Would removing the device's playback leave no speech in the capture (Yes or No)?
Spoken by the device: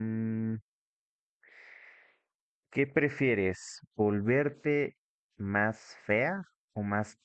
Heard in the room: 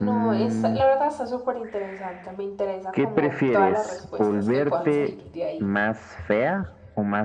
No